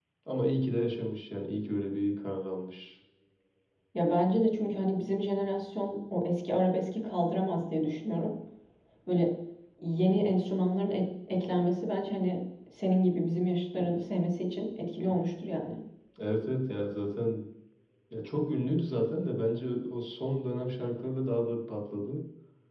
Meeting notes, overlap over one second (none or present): none